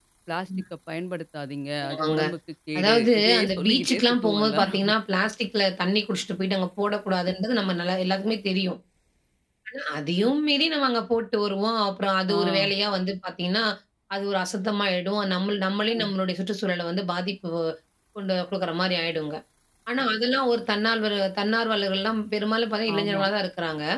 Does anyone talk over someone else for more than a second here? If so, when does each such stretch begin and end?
2.8-4.9

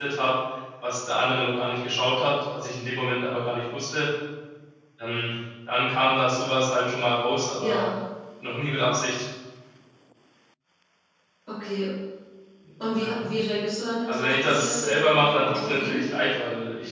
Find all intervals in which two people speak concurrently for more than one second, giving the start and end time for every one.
14.1-16.1

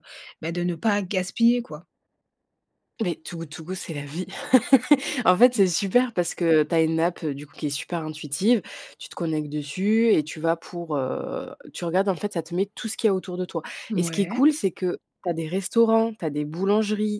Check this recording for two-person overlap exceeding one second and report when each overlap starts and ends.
none

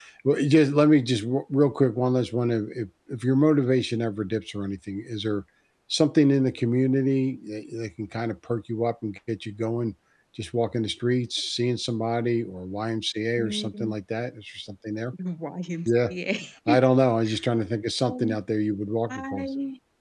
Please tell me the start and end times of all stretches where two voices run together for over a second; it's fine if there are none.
none

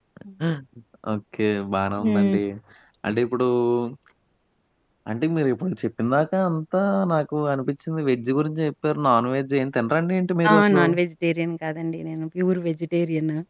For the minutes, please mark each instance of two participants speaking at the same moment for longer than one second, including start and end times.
none

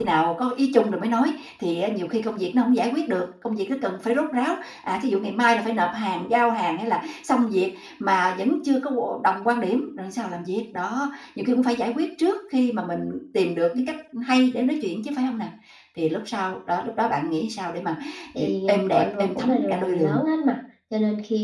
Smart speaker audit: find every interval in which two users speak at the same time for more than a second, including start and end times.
18.4-20.2

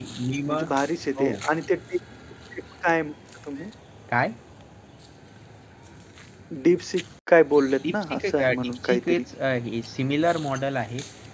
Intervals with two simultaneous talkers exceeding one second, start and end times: 7.9-9.2

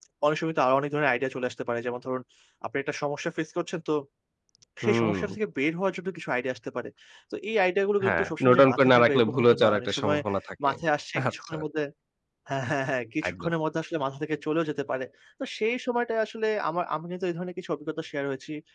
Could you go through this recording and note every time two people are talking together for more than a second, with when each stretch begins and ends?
8.0-10.2

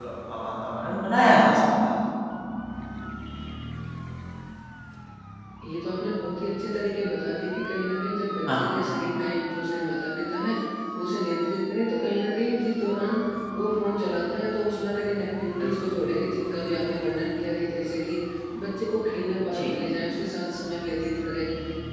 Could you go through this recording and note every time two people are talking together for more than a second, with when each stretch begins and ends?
none

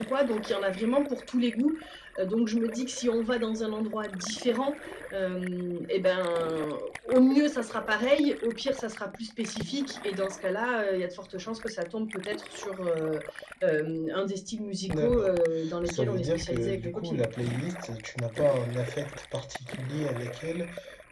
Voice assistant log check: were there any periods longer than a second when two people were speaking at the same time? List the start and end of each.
15.8-17.2

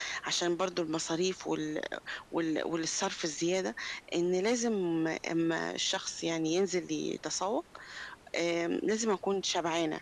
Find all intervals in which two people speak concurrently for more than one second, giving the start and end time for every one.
none

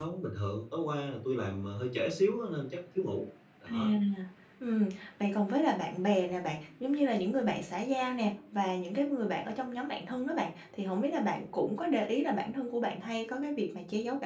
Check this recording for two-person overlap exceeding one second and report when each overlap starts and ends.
none

